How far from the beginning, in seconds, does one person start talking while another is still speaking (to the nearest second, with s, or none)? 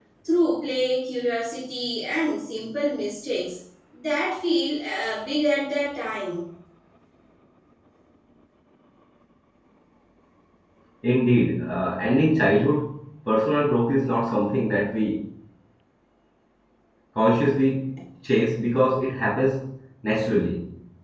none